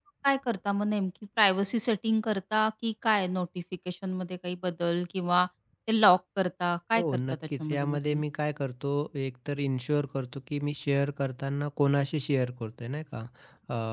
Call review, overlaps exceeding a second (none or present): present